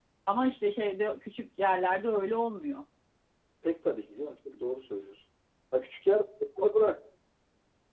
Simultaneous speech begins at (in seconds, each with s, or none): none